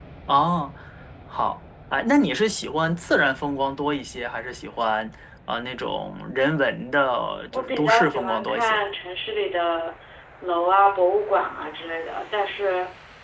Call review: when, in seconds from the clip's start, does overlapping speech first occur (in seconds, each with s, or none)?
7.5 s